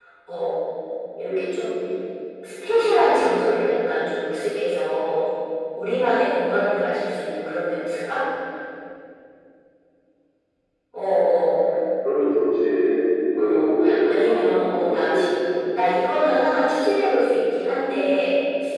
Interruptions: present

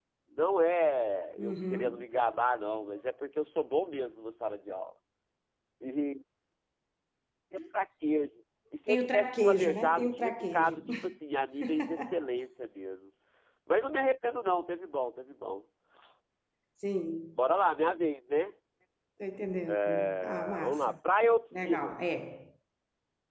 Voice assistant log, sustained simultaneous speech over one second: present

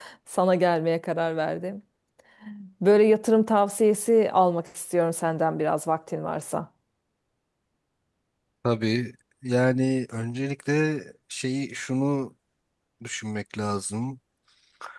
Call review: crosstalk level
none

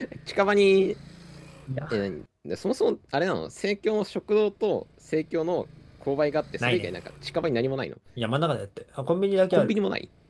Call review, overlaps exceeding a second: none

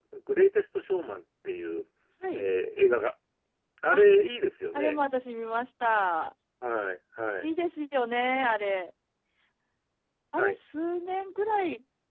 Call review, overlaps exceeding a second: none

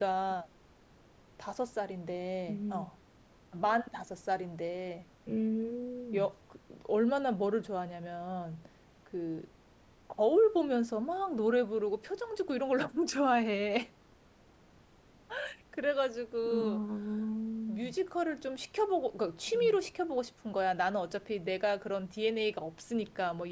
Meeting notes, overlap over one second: none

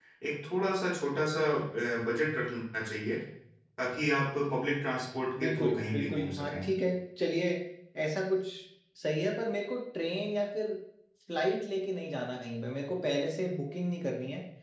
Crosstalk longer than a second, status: present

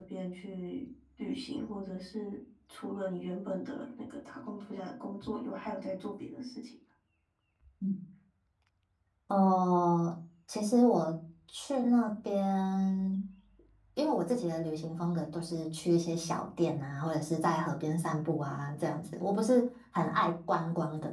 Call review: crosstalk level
none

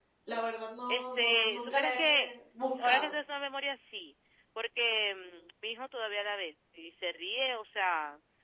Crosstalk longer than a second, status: present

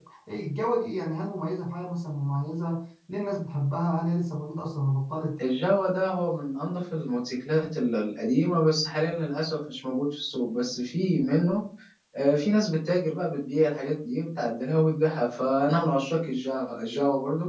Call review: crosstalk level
none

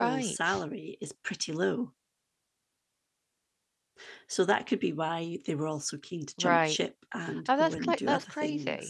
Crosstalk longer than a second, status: present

